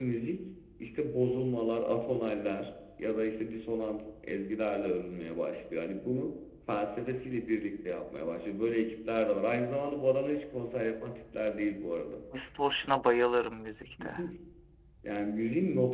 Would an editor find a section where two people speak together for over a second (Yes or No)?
No